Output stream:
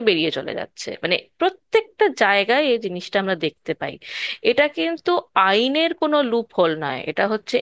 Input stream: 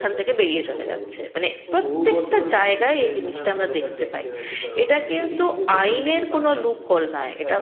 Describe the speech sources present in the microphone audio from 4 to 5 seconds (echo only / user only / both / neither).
both